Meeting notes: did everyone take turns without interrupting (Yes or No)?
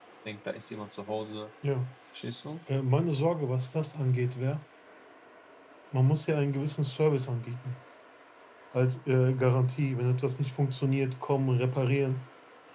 Yes